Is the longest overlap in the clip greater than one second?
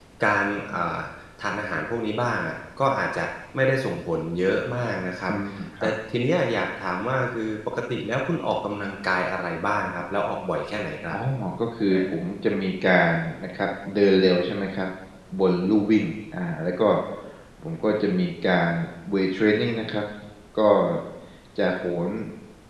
No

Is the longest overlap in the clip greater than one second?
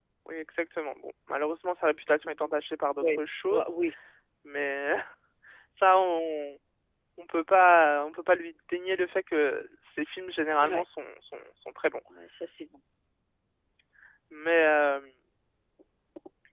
No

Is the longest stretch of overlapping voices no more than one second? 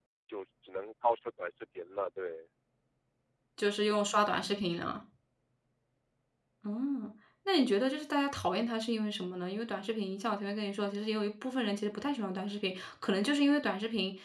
Yes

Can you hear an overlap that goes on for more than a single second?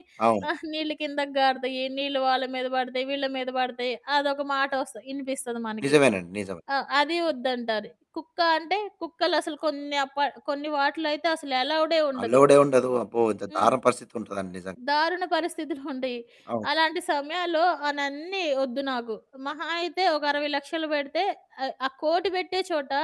No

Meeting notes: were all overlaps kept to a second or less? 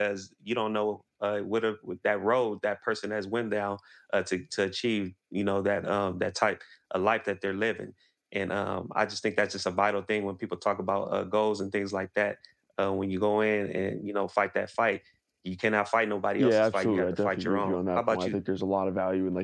No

